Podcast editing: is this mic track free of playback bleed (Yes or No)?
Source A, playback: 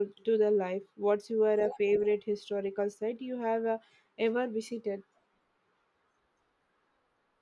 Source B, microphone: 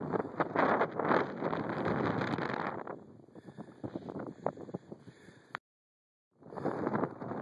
Yes